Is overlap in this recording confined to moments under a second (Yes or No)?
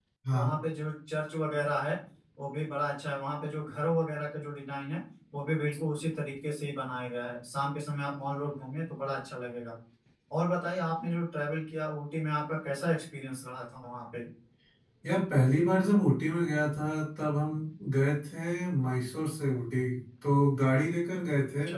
Yes